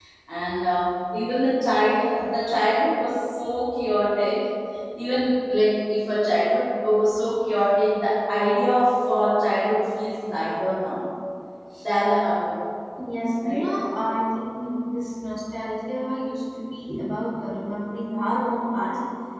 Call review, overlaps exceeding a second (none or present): none